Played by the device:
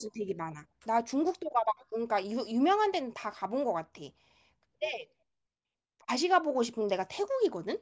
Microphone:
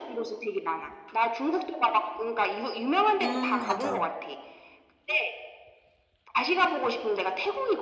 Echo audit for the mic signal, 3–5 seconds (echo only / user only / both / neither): both